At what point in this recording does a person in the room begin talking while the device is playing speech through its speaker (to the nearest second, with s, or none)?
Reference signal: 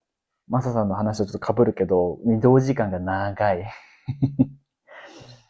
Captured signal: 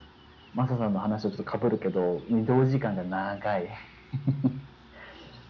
none